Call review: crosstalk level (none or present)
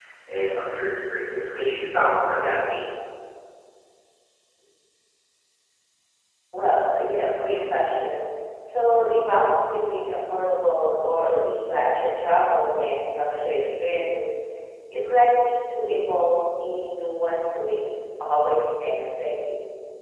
none